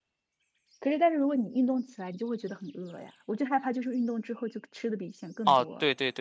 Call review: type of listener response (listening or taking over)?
taking over